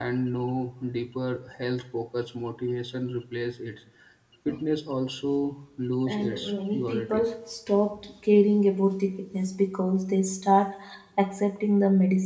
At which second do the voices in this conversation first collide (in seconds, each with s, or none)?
6.1 s